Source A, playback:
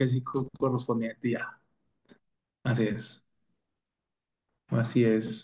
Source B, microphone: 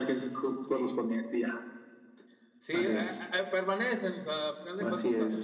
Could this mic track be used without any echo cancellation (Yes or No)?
No